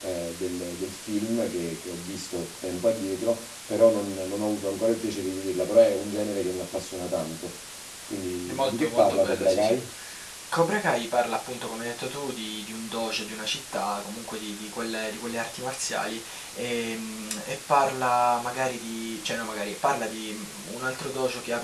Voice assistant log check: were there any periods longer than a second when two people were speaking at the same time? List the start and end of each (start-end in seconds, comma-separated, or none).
8.5-9.7